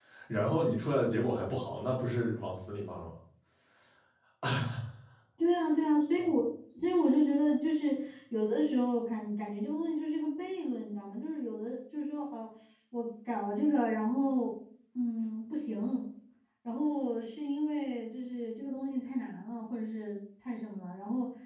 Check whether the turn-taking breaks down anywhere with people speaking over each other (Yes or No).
No